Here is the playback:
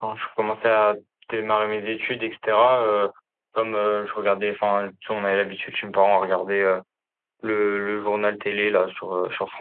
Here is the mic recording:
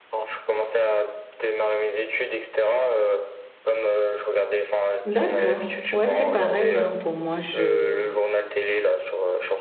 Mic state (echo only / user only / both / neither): both